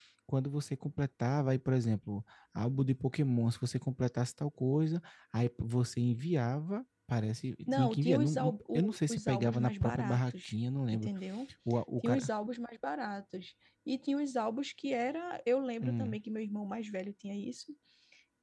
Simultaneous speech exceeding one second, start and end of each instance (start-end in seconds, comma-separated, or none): 7.7-10.5